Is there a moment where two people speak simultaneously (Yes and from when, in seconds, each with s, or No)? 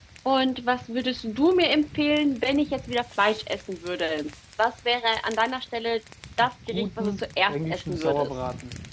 Yes, from 6.4 s